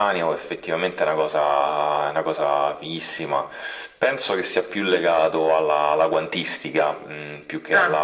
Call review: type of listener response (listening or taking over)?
listening